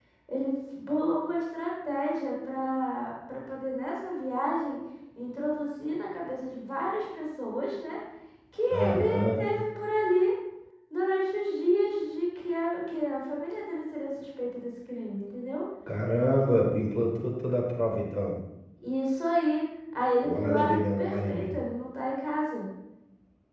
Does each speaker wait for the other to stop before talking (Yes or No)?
No